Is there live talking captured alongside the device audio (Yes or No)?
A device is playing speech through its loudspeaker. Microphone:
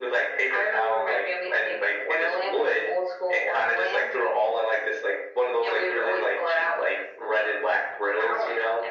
No